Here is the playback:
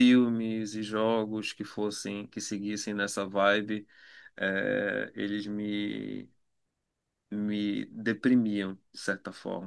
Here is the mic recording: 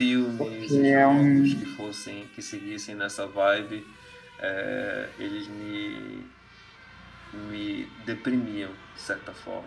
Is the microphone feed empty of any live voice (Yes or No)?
No